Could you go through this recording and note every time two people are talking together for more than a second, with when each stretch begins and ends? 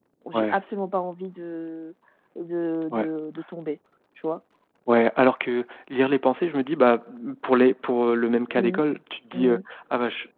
none

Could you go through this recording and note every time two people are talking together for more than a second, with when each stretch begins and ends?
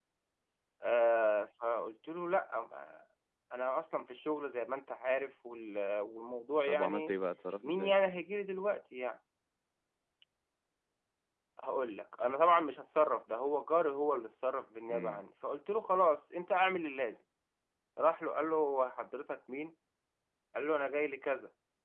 none

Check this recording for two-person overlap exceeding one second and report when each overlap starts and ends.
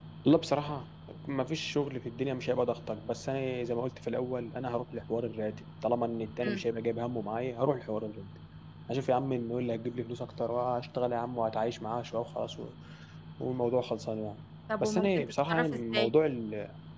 14.8-16.1

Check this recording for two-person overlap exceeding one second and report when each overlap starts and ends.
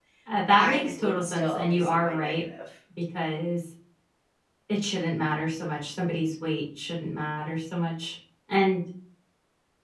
0.5-2.4

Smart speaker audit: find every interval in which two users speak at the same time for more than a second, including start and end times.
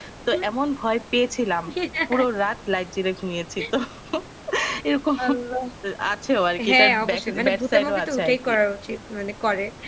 6.7-8.5

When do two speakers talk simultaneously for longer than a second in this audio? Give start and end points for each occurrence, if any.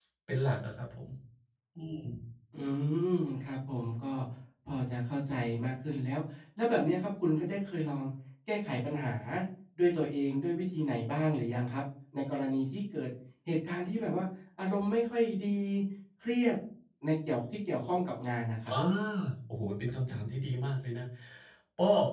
none

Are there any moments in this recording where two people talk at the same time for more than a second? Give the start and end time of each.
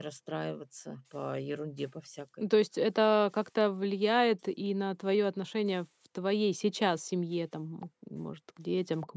none

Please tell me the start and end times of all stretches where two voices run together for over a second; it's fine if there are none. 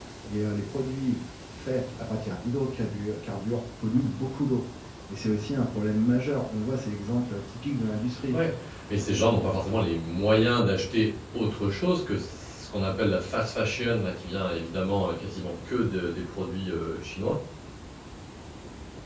none

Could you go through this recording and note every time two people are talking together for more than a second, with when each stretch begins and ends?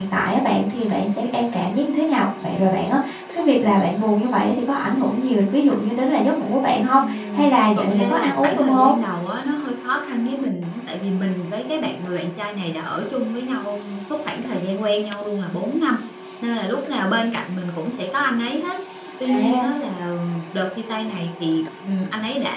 7.0-9.0

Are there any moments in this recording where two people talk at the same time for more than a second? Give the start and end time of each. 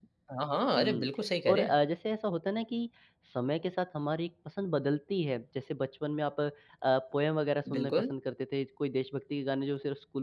none

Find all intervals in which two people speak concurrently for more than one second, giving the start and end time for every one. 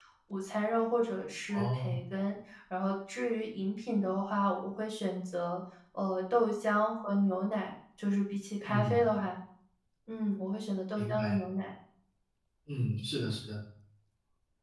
none

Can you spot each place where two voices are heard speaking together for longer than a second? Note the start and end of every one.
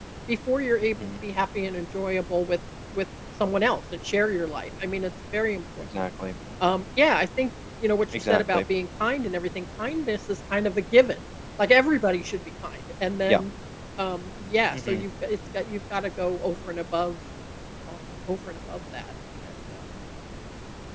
none

